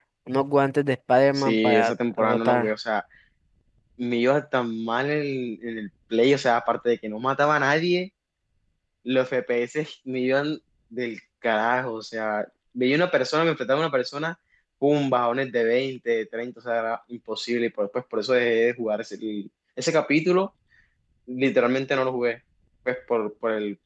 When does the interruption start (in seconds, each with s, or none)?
1.4 s